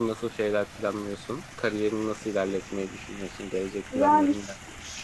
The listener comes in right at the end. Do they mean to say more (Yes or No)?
Yes